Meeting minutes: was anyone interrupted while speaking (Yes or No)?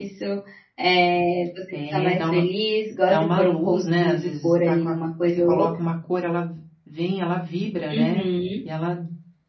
Yes